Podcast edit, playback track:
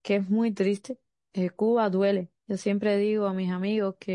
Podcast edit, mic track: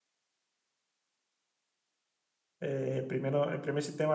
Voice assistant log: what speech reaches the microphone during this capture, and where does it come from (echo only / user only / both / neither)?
user only